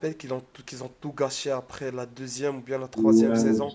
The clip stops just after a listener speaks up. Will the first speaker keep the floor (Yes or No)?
No